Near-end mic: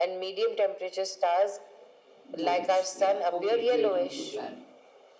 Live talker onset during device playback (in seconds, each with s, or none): 2.2 s